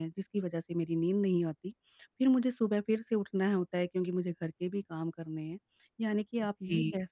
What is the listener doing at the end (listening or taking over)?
listening